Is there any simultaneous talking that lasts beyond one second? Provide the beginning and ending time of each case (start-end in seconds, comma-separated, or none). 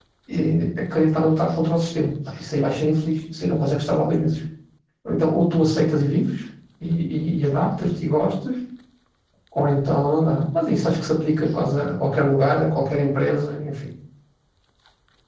none